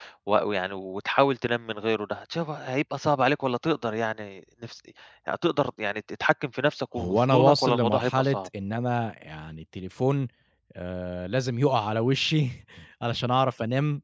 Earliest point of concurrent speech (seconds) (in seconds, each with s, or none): 7.0 s